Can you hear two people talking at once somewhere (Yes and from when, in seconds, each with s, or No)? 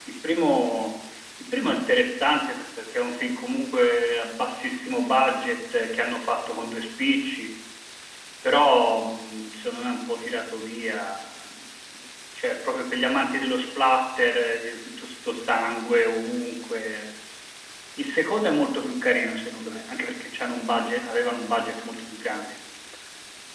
No